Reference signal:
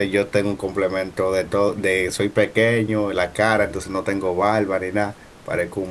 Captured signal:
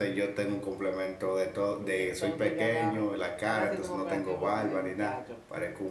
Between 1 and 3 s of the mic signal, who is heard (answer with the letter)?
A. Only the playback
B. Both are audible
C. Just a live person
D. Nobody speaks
B